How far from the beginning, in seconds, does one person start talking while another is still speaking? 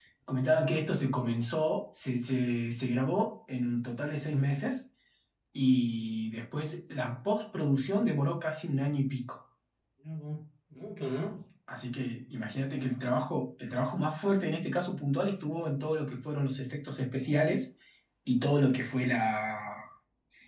none

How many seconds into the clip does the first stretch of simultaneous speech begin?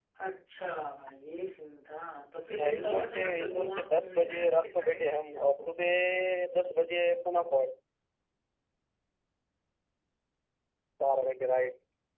2.6 s

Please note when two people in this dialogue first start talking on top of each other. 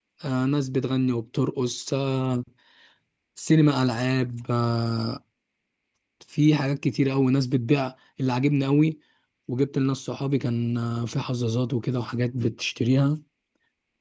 none

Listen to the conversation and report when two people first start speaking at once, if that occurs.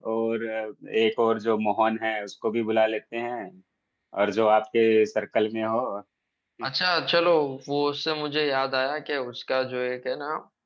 none

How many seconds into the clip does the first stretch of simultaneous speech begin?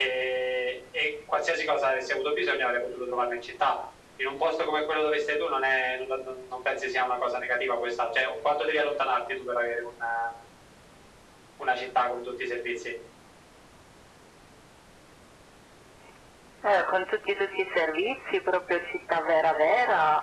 none

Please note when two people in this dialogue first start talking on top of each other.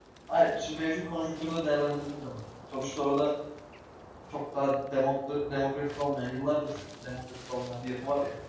none

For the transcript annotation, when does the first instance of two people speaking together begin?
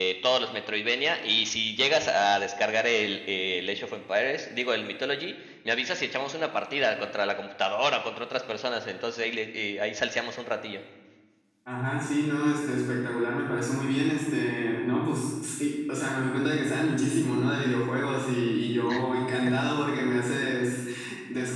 none

